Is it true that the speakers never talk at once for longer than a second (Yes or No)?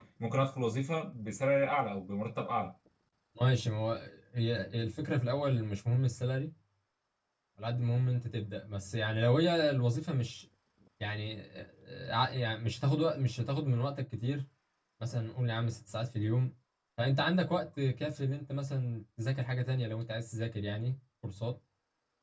Yes